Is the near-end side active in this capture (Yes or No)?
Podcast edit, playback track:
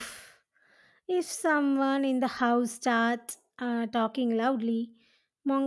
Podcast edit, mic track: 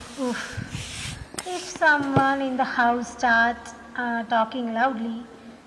No